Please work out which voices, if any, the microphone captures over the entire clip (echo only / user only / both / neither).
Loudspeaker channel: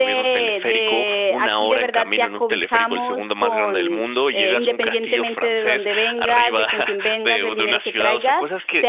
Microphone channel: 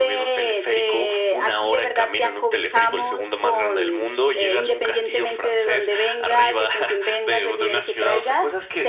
echo only